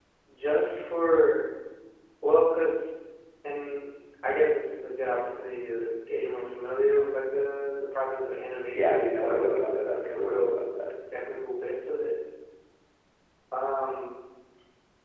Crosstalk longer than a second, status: present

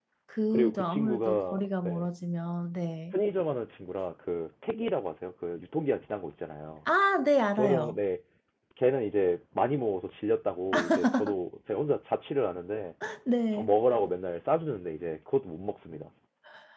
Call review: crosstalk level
present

